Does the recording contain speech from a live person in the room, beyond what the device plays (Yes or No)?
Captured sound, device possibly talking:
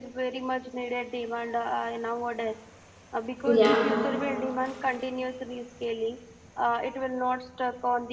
Yes